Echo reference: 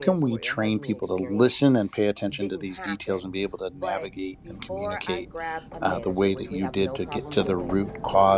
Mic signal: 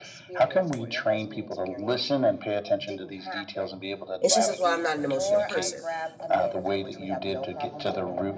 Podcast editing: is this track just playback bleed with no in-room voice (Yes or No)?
No